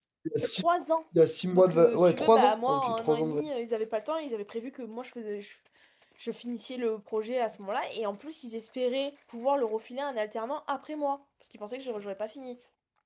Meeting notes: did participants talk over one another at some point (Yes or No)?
Yes